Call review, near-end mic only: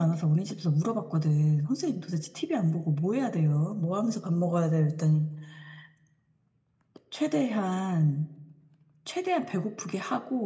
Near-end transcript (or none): none